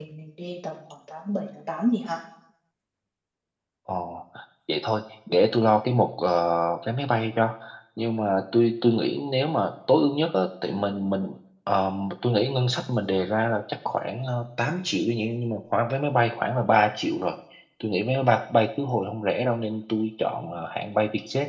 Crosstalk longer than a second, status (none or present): none